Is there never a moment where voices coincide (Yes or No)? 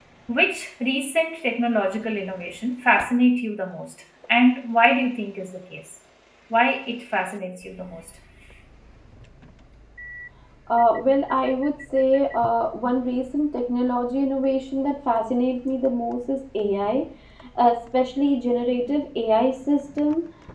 Yes